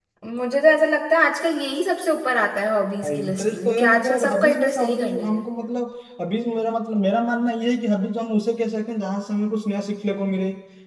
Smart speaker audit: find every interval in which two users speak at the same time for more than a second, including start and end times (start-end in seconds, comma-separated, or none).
3.2-5.4